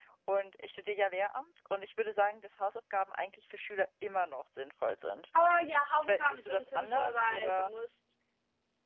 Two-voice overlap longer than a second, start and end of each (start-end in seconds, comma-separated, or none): 6.0-7.7